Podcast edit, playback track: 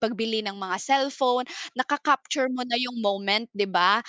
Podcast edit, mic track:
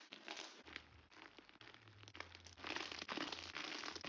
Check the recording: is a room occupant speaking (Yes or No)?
No